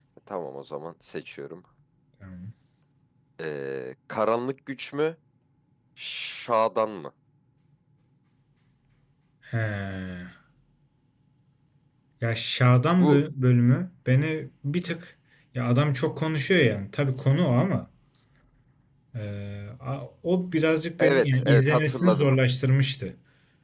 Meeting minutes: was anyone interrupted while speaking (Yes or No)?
Yes